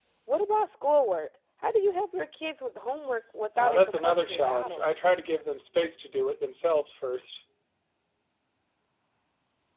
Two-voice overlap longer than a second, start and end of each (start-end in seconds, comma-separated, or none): 3.6-4.8